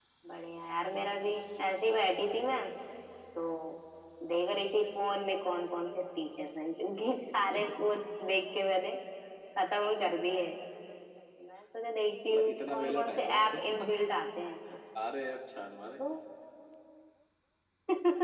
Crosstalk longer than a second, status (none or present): present